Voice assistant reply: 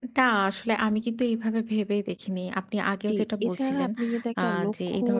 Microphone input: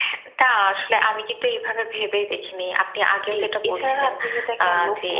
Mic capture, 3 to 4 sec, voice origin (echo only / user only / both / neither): echo only